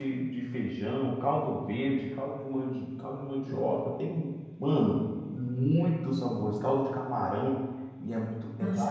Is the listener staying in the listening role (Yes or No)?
No